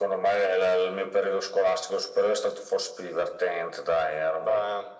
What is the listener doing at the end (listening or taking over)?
listening